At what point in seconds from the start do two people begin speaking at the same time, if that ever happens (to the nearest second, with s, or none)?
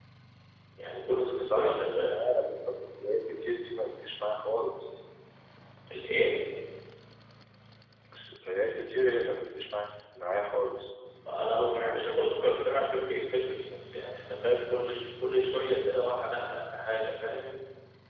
1 s